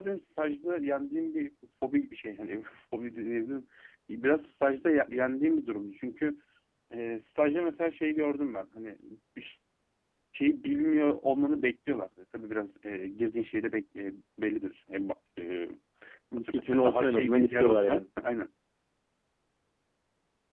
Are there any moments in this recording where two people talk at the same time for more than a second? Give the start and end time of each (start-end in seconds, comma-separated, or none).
16.4-18.0